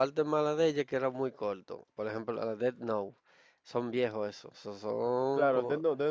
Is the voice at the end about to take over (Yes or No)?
Yes